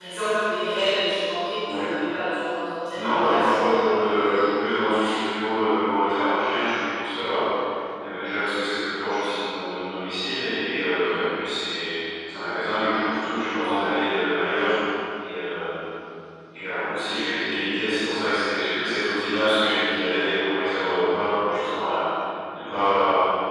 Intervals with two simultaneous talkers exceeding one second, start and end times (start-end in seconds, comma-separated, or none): 2.9-5.2